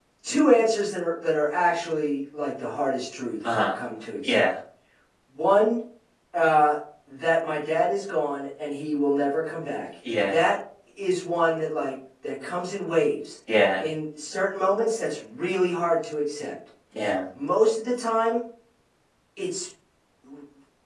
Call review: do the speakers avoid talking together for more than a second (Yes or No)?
Yes